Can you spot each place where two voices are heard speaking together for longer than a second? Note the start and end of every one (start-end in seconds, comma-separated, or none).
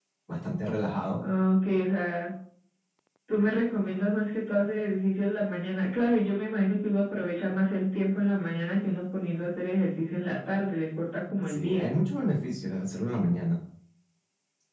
none